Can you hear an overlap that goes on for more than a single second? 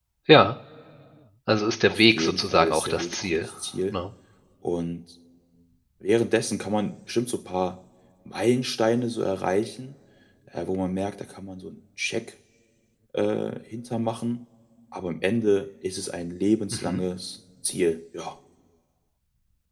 Yes, from 1.9 s

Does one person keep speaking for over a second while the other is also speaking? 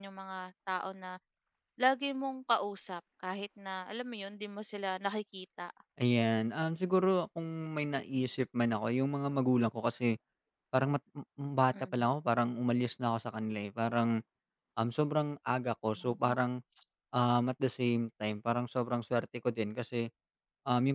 No

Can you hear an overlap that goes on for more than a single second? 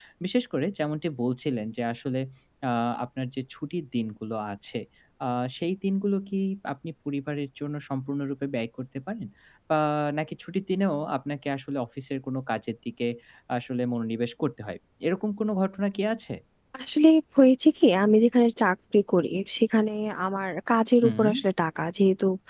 No

